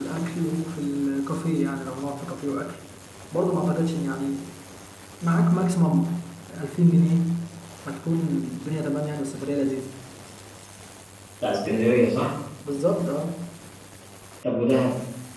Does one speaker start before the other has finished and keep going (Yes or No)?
No